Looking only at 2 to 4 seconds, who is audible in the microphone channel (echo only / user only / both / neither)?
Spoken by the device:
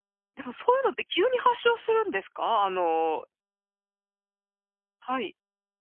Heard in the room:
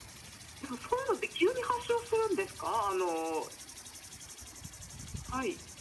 echo only